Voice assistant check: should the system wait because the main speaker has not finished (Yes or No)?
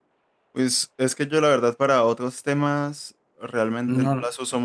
Yes